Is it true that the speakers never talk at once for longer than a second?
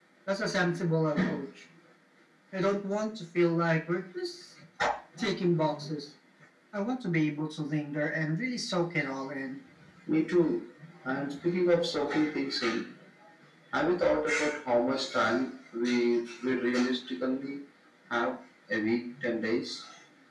Yes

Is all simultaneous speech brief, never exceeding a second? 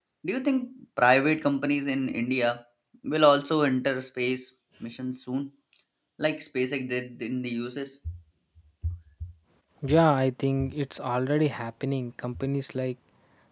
Yes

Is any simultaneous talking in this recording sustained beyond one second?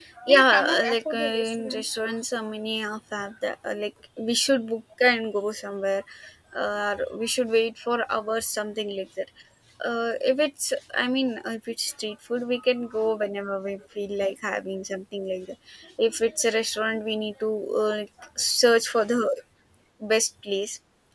Yes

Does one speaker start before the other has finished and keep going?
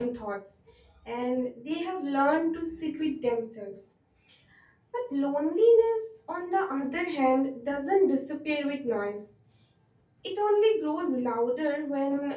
No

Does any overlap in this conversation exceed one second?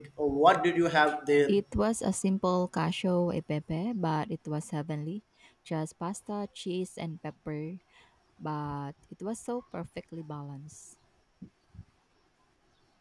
No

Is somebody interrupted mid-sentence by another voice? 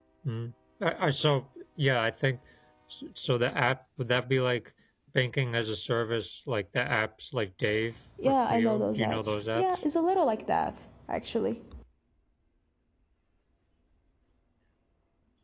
Yes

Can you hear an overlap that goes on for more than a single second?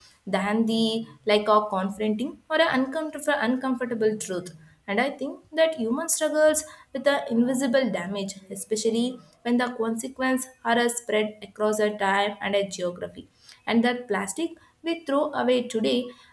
No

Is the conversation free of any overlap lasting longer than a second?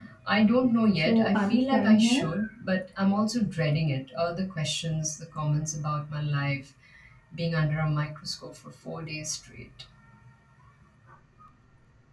No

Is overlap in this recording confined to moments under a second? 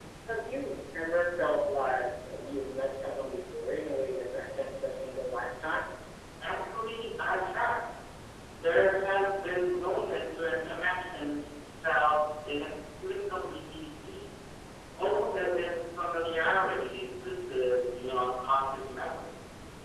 Yes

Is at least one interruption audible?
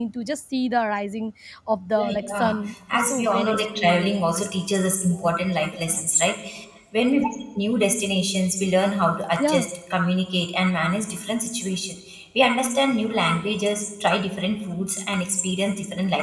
Yes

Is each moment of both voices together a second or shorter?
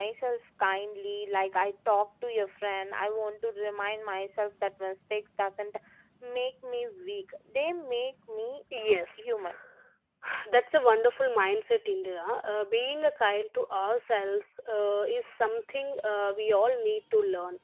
Yes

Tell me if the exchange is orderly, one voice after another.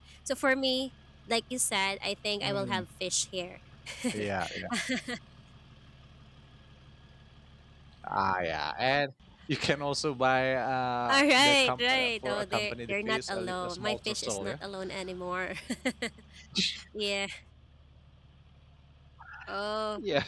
No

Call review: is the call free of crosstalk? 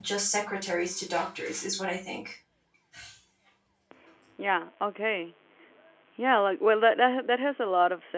Yes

